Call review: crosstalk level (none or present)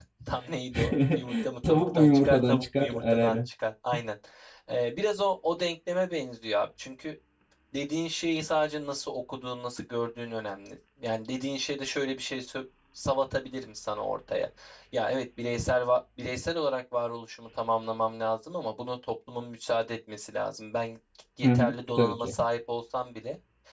present